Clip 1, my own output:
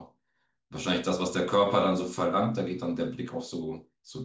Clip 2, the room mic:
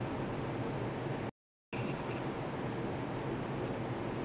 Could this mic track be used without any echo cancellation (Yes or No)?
Yes